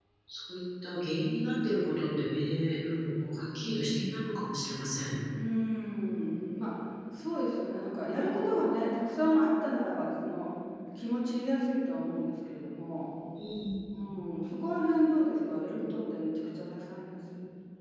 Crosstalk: none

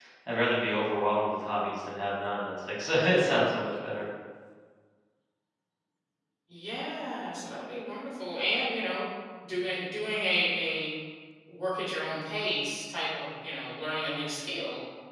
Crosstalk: none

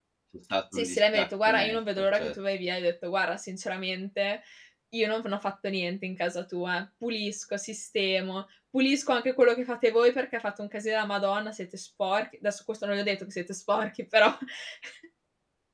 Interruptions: present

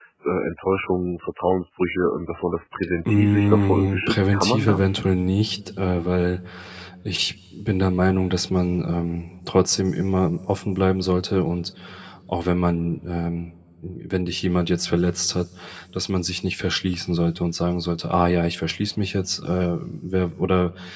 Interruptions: present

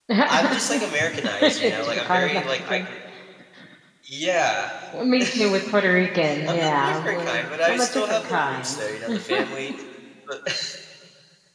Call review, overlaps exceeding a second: present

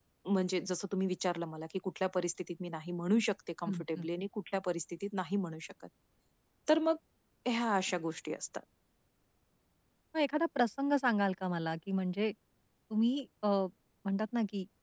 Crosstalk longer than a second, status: none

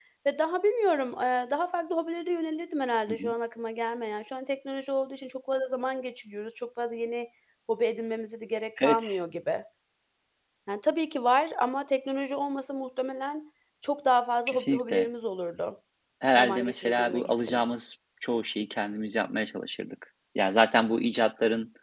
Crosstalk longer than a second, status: present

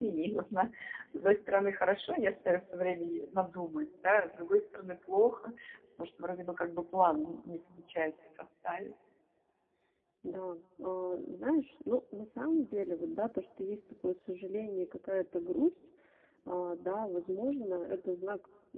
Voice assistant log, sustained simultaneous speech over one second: none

